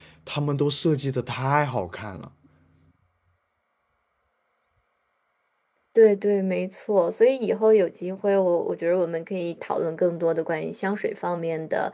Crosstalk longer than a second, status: none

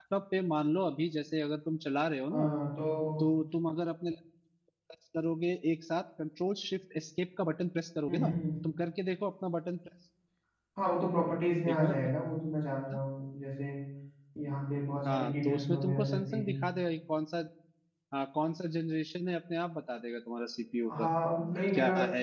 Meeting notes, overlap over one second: present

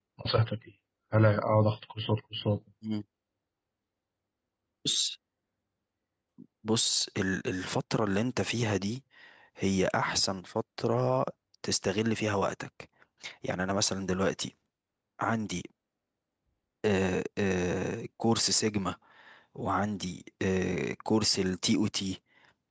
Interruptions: none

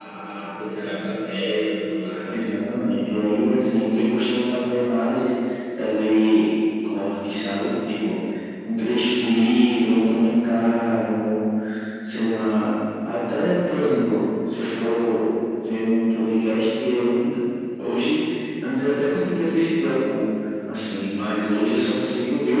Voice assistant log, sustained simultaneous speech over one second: none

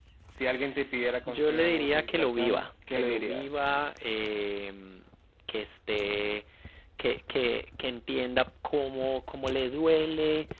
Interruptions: present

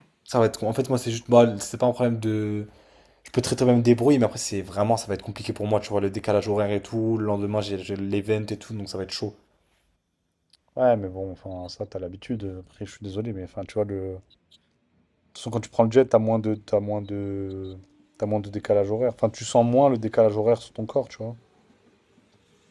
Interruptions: none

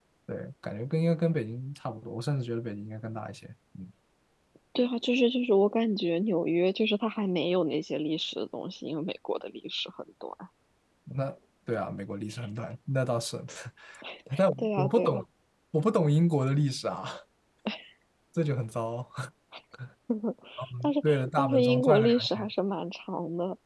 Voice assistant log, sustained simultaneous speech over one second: present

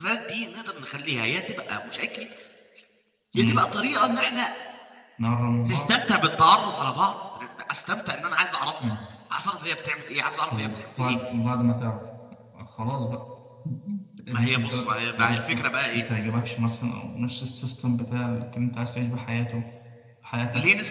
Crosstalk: present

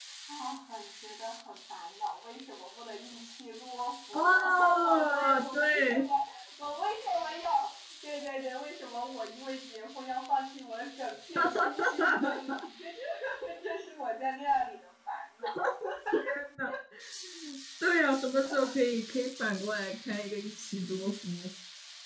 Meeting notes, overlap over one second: present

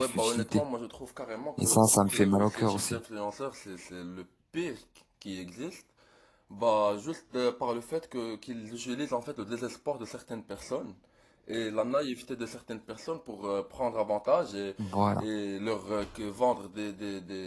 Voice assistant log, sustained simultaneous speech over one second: present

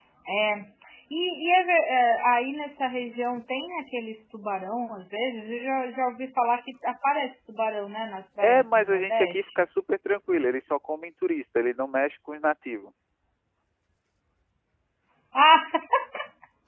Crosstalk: present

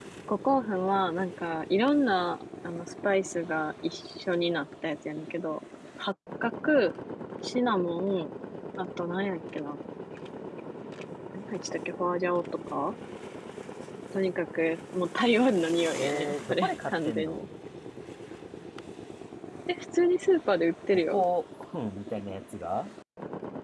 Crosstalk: present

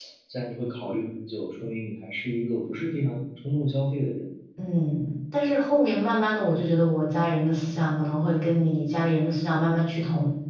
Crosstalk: none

